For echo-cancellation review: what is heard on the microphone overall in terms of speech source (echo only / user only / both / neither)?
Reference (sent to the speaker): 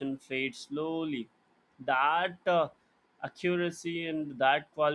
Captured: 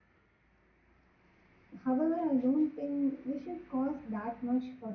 user only